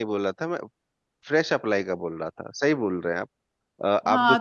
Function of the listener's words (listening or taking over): taking over